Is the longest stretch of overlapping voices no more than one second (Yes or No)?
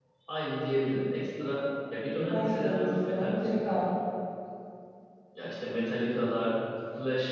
No